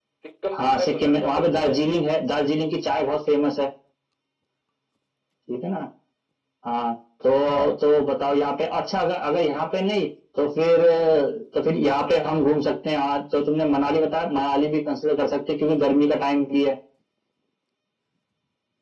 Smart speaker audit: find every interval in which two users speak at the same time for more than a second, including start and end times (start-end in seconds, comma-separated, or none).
0.6-1.8